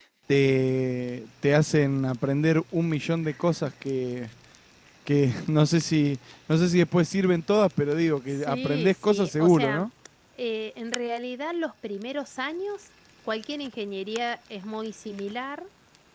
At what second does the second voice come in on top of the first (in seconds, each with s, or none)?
8.3 s